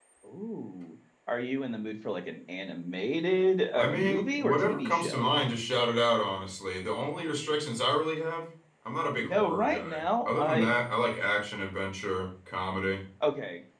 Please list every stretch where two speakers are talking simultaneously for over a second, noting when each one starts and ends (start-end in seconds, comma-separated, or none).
3.8-5.3, 9.2-10.7